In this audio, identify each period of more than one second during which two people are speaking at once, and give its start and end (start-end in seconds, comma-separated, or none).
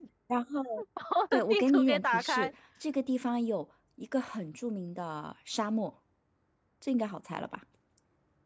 1.3-2.5